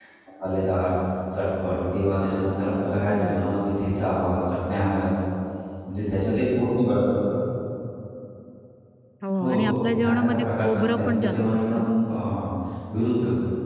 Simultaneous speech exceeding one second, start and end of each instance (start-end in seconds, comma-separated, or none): 9.4-11.9